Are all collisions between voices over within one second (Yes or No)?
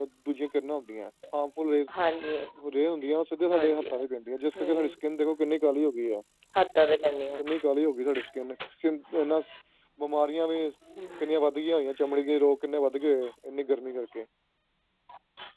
Yes